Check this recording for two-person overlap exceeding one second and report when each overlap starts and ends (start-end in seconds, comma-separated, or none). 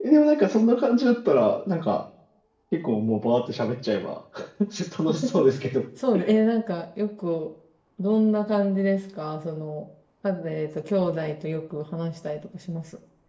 none